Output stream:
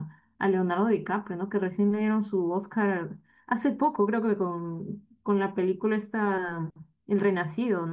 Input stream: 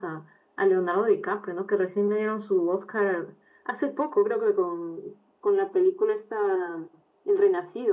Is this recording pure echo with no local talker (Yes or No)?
Yes